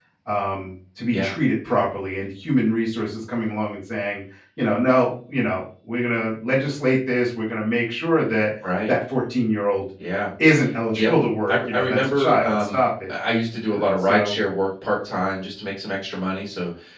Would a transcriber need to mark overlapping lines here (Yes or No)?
Yes